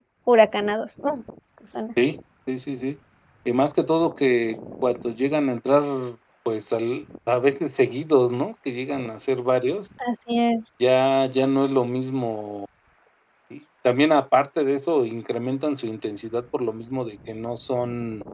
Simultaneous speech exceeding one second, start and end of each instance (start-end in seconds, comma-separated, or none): none